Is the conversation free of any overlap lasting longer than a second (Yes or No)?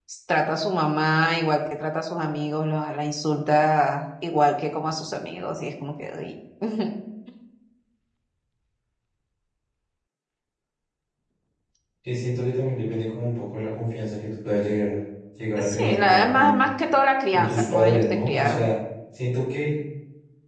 No